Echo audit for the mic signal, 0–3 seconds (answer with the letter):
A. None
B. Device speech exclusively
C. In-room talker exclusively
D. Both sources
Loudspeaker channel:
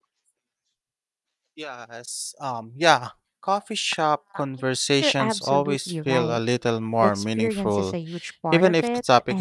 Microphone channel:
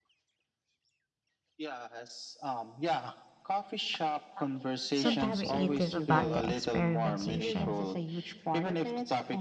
B